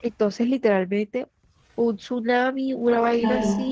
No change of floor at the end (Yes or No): No